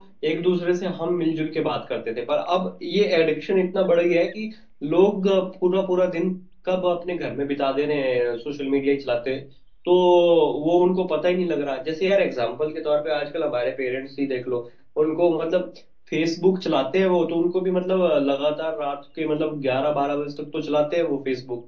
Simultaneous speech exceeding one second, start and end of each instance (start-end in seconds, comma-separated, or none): none